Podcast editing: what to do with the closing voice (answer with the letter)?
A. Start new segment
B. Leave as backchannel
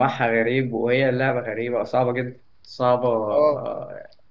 B